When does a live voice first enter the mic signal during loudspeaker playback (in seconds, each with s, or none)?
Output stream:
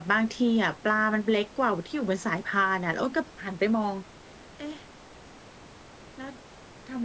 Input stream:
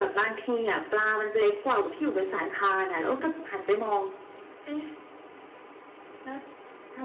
none